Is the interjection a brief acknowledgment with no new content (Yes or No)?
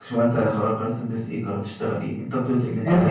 No